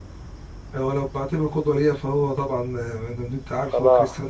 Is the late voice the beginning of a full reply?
No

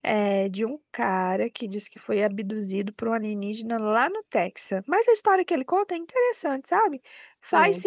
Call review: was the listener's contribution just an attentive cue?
Yes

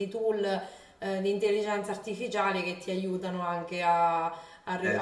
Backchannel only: Yes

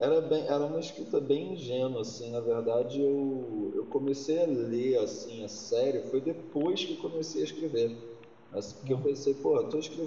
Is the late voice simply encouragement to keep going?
Yes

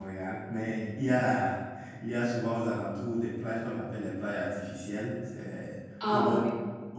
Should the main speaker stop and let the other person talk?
No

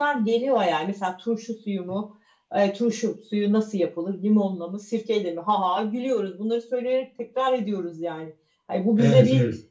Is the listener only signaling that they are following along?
Yes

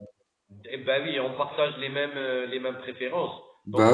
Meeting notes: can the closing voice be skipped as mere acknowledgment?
Yes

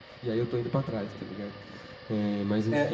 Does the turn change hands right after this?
Yes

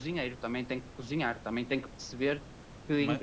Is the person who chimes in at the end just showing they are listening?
Yes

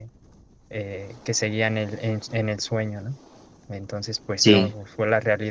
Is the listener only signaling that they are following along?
Yes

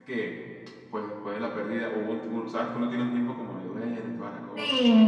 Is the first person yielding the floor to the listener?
Yes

